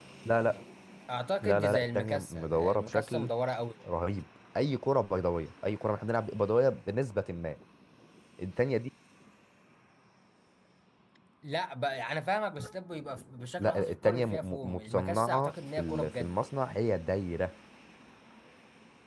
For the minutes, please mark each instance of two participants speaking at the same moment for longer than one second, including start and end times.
1.4-3.3, 13.6-16.3

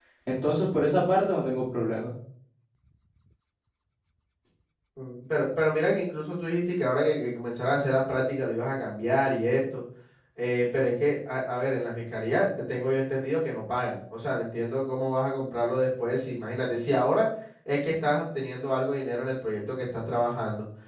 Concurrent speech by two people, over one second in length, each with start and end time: none

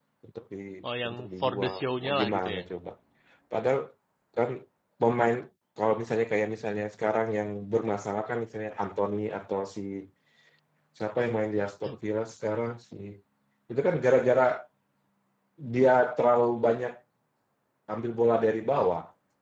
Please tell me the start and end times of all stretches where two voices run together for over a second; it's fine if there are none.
1.1-2.6

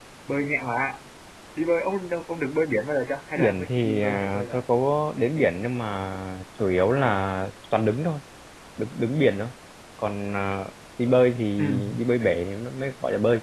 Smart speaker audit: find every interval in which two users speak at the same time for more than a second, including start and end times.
3.4-4.6

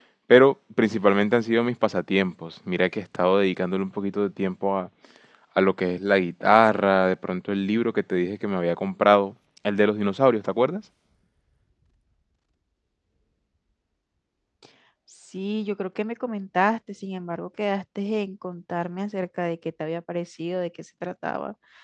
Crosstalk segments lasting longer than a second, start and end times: none

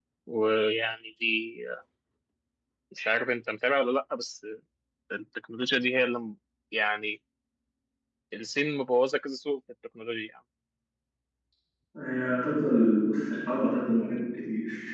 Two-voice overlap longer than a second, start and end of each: none

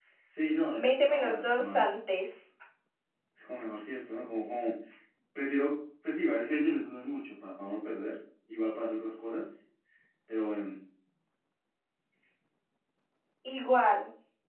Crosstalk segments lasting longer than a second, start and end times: 0.8-2.1

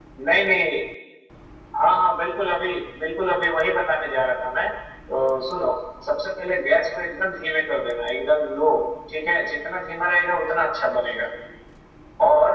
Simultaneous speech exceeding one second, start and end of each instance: none

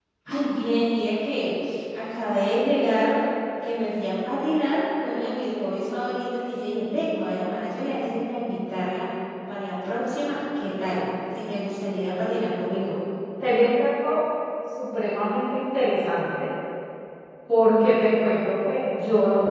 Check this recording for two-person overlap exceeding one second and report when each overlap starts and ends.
none

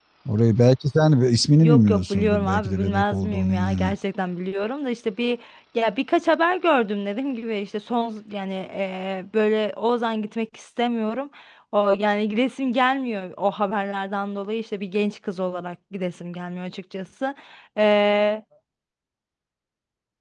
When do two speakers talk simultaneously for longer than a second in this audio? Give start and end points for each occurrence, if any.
1.6-3.9

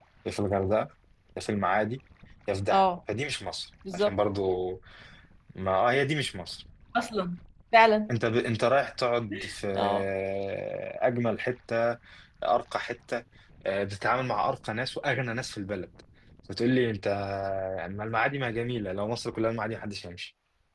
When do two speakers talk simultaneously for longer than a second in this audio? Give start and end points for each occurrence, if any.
none

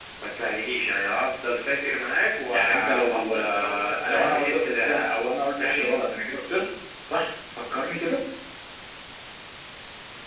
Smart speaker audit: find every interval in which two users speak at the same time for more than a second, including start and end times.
2.5-5.0

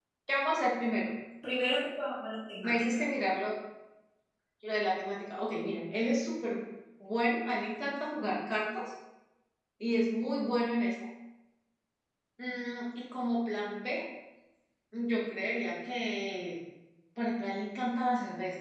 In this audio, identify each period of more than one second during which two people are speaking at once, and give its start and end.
none

